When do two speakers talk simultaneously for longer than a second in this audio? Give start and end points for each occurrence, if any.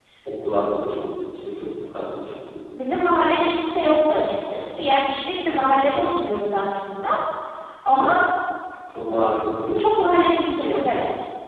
none

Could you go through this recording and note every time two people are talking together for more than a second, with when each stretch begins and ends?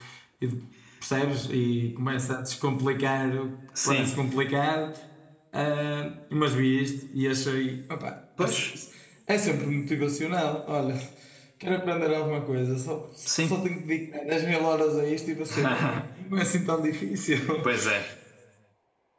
none

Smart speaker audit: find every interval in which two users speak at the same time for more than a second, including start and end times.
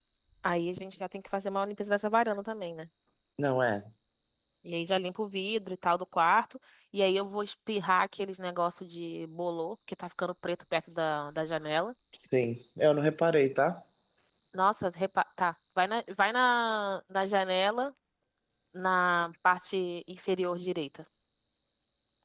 none

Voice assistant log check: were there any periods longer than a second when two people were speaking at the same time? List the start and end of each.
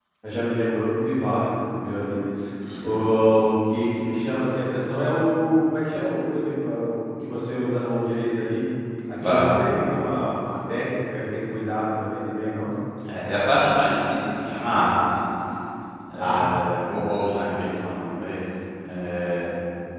none

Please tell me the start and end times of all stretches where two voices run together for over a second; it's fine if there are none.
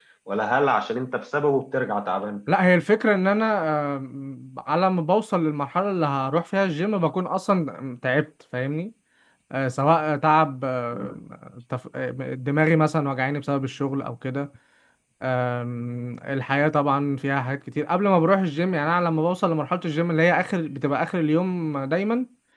none

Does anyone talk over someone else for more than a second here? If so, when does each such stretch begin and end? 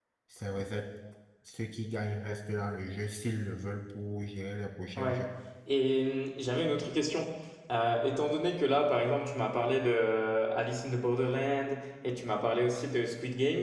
none

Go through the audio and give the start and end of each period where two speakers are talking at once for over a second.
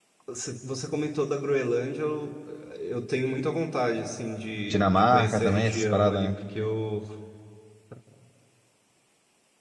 4.7-6.3

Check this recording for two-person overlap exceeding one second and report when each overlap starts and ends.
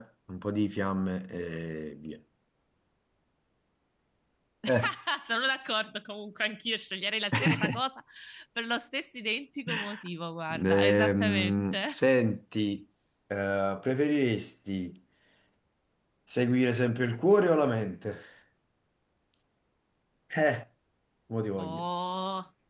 10.5-12.0

